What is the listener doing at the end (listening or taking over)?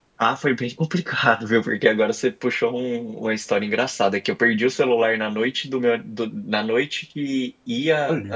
listening